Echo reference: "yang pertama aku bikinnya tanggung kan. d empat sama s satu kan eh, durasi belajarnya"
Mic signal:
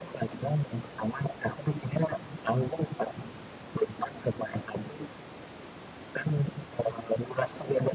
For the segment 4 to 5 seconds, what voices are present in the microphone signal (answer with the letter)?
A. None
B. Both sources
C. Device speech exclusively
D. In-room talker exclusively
C